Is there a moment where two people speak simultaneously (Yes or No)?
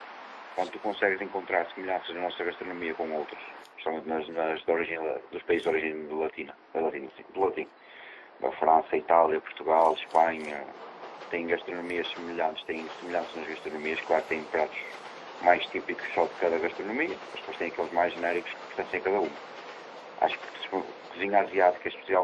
No